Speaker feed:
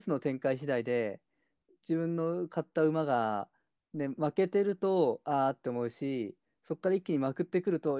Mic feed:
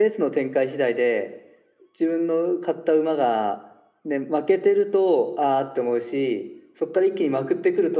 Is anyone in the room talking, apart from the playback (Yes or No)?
No